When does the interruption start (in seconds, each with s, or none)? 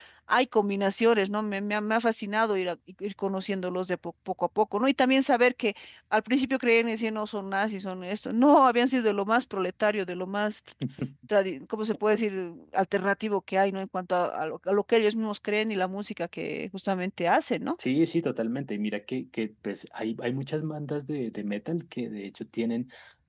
none